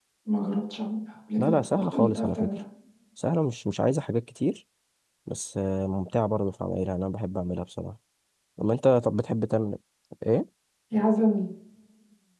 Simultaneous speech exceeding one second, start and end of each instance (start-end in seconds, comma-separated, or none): 1.4-2.6